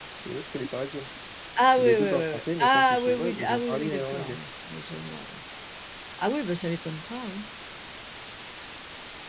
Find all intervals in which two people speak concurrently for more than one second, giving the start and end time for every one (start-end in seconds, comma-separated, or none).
1.8-4.4